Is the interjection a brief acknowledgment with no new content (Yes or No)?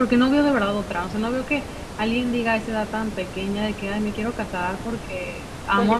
Yes